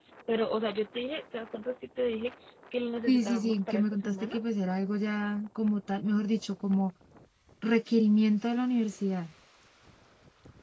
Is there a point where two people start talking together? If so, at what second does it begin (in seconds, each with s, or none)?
3.1 s